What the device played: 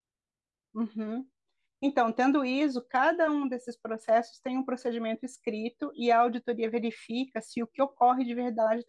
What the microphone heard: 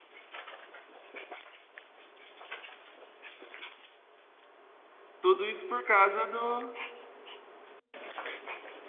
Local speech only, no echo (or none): Tudo isso por causa do,